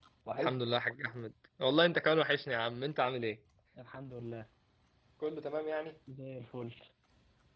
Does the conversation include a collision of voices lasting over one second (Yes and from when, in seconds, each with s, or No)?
No